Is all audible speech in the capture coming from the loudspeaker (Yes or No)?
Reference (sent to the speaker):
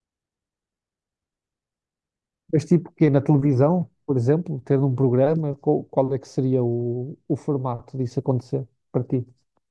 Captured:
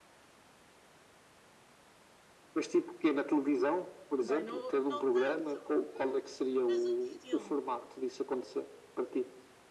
No